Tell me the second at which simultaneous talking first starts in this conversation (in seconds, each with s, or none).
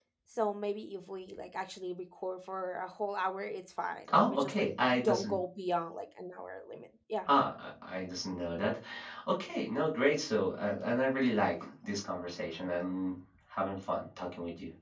4.1 s